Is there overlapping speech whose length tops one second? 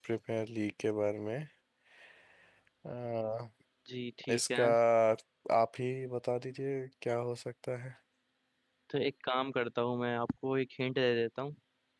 No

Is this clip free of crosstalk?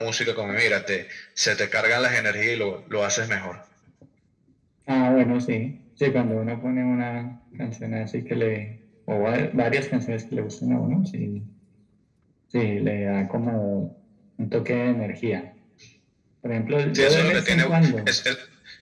No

